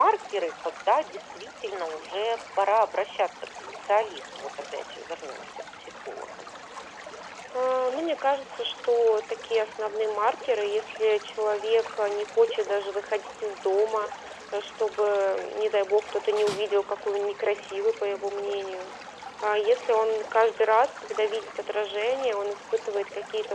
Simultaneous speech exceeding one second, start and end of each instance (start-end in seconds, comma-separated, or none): none